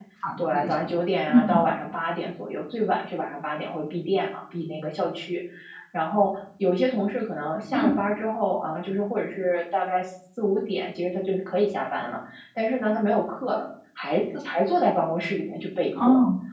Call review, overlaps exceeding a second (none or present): none